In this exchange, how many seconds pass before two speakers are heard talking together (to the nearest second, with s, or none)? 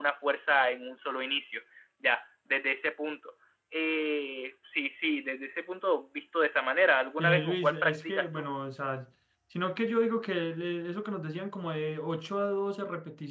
7 s